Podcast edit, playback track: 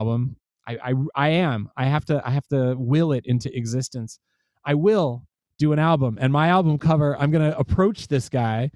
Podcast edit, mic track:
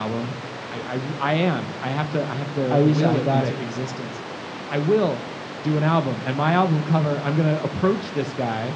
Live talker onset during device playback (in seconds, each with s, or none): 2.7 s